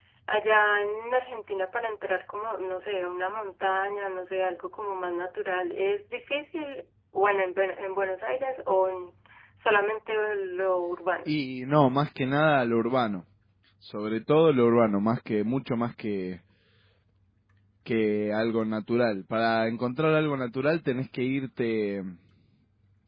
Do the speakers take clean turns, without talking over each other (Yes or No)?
Yes